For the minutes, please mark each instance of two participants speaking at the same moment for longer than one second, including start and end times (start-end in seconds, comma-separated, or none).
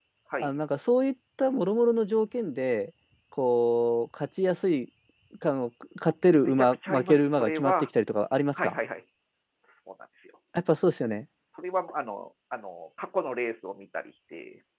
6.4-7.7